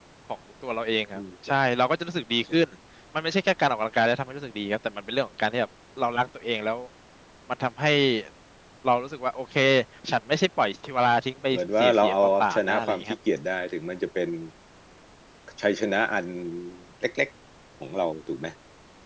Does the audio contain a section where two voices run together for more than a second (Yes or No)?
Yes